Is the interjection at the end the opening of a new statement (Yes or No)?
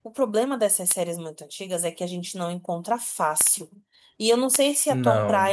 No